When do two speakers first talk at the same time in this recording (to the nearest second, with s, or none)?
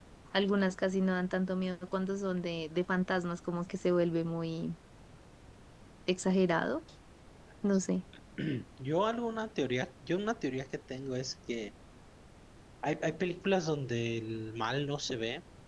none